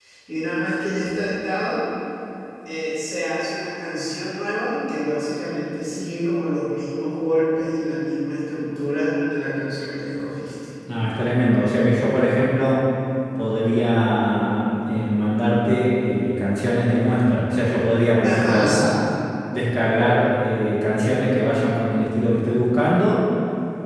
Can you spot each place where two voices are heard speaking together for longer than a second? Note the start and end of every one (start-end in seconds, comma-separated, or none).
none